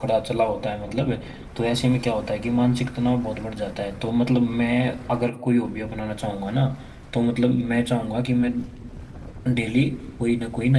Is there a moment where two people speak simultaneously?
No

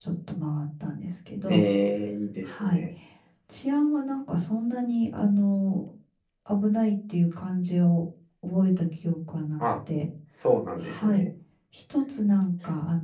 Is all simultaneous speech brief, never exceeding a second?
Yes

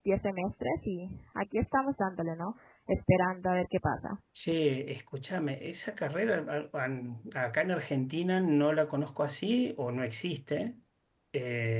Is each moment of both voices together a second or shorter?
Yes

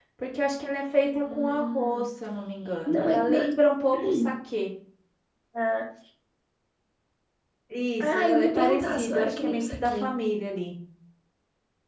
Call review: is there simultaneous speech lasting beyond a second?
Yes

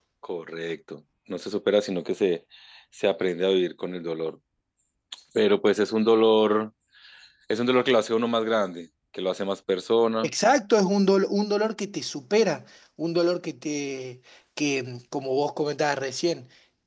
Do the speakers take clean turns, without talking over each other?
Yes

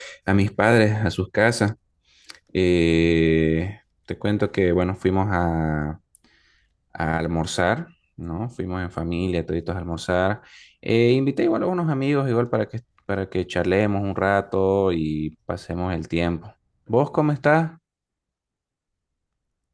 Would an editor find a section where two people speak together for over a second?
No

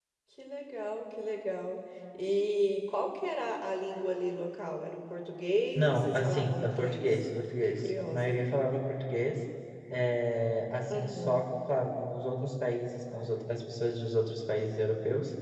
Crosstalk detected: Yes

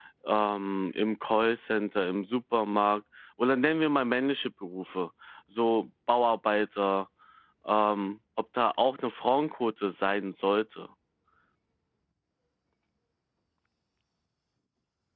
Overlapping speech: No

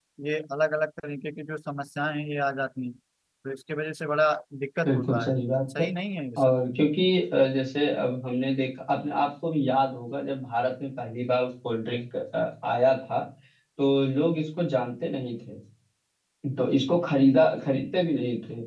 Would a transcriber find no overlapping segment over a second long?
Yes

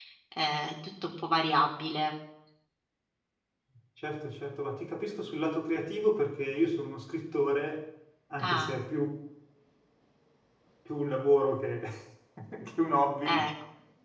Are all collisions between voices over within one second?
Yes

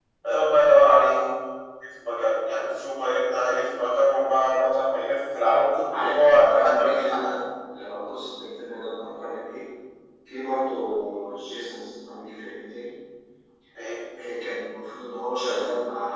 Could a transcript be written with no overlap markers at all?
No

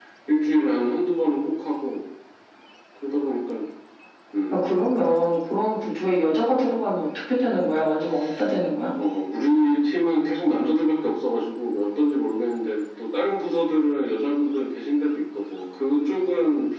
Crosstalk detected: No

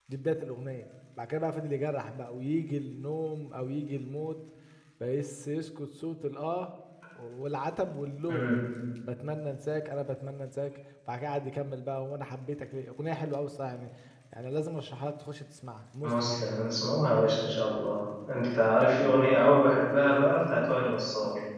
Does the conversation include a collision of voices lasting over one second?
No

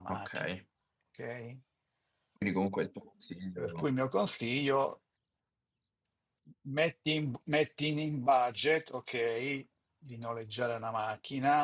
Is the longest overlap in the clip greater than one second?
No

